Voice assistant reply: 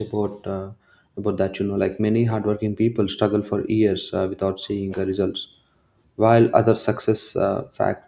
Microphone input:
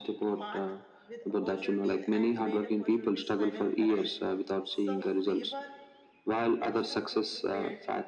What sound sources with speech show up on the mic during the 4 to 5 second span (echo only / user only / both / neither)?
both